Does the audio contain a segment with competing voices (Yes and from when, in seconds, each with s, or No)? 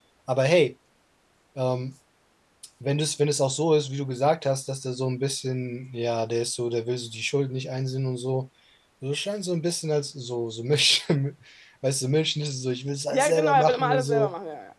Yes, from 13.1 s